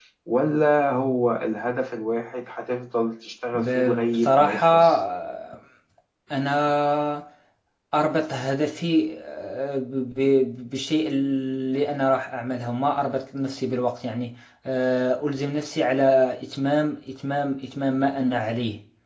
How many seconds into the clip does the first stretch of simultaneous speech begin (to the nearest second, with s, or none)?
4 s